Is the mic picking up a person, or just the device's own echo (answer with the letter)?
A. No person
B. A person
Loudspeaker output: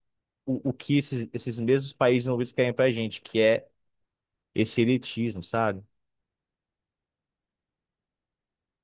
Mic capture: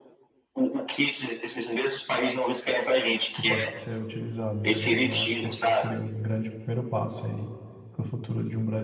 B